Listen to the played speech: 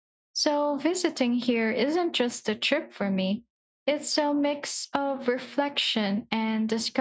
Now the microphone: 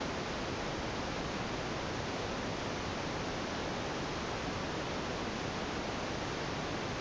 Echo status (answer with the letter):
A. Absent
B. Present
A